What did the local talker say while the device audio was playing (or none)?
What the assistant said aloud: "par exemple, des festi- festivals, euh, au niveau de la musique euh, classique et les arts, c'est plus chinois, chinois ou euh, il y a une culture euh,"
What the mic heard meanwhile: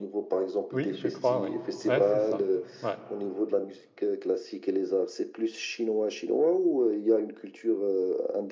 Oui, je crois, oui. Ouais, c'est ça. Ouais.